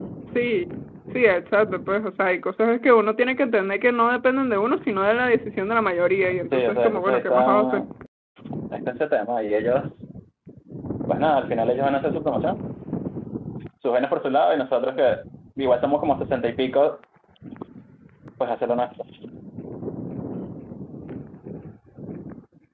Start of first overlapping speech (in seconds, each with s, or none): 6.5 s